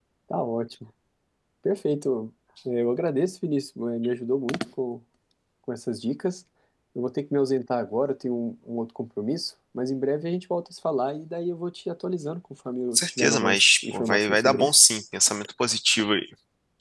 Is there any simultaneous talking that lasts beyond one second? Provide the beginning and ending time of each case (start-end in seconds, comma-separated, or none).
12.9-14.8